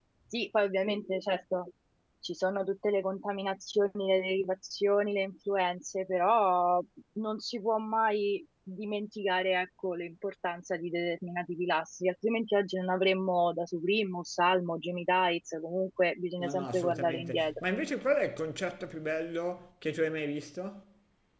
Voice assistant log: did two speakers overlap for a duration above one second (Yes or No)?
Yes